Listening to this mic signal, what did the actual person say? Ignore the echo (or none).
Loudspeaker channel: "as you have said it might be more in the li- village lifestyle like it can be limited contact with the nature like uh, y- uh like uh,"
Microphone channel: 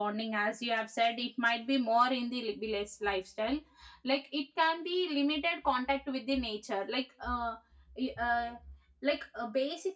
none